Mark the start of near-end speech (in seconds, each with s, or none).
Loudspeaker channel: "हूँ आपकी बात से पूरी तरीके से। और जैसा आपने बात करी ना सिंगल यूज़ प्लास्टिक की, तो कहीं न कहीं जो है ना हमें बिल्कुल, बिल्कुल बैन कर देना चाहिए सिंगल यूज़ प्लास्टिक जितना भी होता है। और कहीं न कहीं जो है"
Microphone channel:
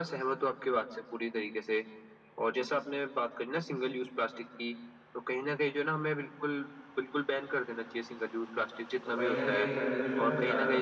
9.0 s